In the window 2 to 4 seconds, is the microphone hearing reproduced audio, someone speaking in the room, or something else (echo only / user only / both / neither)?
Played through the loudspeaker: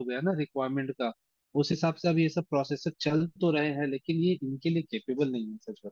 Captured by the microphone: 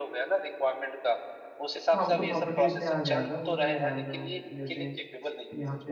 both